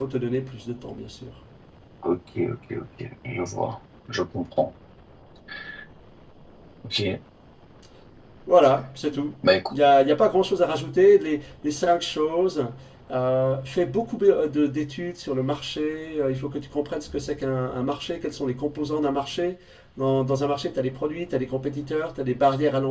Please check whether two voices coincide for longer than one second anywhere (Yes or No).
No